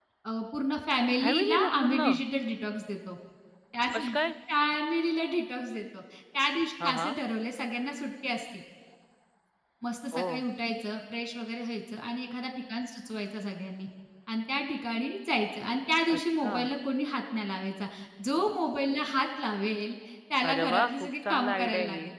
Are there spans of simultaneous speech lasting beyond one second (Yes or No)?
Yes